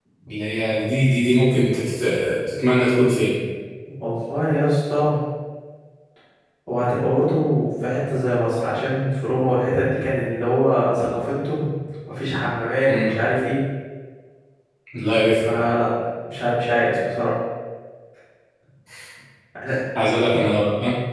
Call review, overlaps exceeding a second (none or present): none